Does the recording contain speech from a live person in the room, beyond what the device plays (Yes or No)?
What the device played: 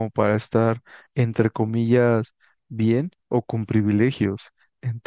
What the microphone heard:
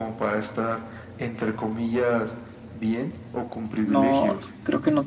Yes